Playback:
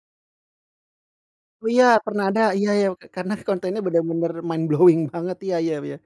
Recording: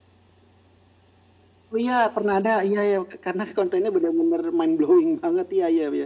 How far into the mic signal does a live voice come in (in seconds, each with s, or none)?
none